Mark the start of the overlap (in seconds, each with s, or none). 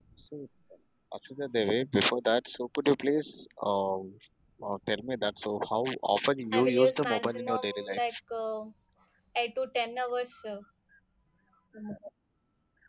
6.5 s